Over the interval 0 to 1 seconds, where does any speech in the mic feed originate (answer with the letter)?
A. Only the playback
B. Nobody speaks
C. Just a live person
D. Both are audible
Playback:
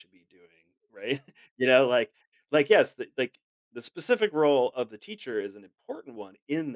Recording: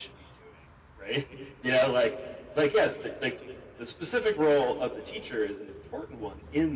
A